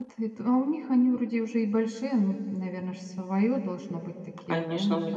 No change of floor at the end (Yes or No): No